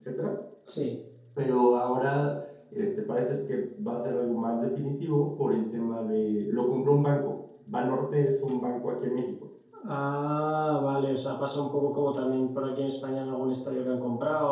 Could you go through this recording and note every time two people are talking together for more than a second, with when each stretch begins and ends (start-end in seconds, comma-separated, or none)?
none